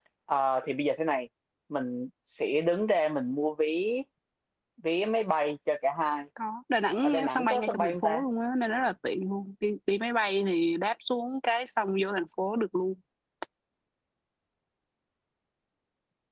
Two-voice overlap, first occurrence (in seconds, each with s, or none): 7.0 s